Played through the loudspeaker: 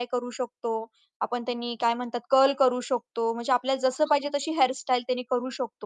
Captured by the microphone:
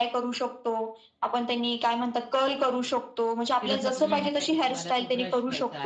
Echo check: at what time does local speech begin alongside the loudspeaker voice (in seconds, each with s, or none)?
3.6 s